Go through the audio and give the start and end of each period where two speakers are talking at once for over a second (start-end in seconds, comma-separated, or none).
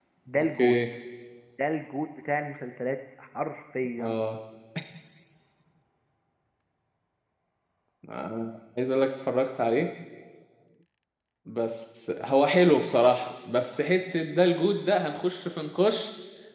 none